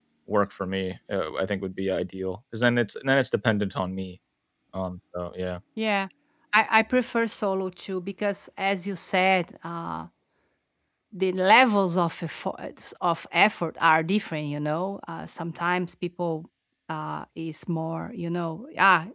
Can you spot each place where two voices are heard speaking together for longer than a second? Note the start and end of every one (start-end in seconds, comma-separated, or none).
none